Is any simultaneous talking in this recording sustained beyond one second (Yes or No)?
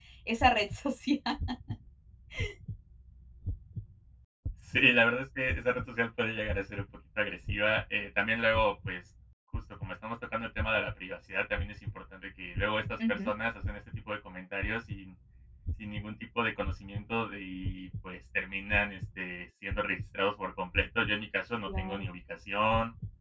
No